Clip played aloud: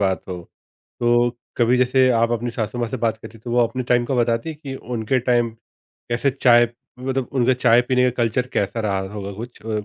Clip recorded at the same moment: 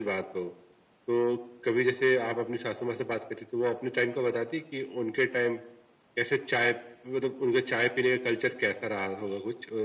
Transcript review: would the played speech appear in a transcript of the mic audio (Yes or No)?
Yes